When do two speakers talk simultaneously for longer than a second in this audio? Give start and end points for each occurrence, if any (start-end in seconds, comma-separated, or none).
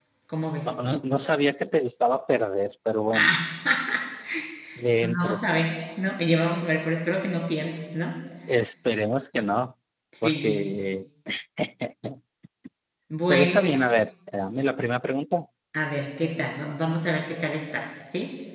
5.0-6.4